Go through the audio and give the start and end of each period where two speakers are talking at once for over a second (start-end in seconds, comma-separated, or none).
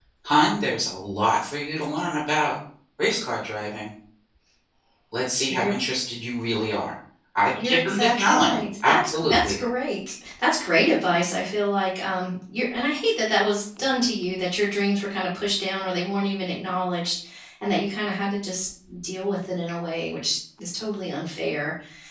7.5-9.6